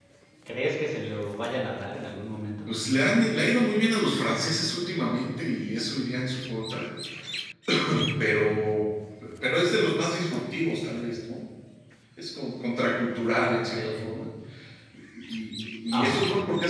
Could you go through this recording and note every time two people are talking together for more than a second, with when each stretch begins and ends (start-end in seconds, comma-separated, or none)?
none